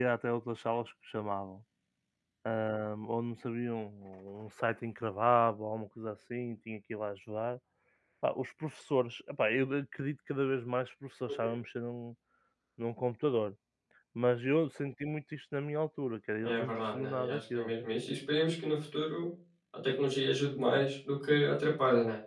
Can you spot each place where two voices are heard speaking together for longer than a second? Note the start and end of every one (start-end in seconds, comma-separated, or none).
16.4-17.7